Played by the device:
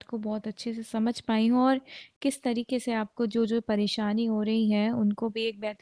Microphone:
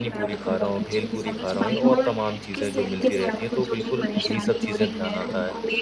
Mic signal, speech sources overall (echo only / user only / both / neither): both